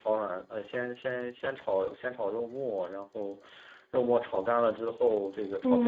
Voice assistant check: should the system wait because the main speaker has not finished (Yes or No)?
No